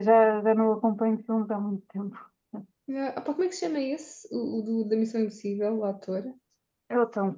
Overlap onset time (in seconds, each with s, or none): none